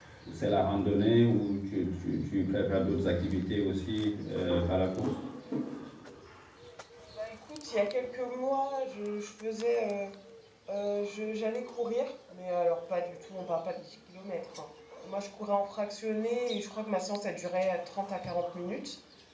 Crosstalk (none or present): none